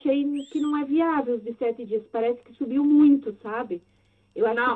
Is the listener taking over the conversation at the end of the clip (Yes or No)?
Yes